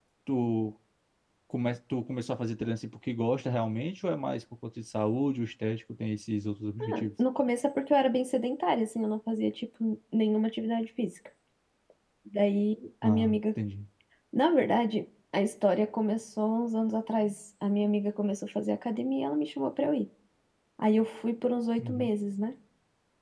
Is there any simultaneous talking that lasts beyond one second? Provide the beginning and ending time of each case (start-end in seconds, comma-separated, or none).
none